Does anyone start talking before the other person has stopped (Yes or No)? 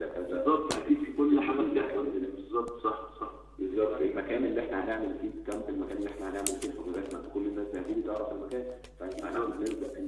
Yes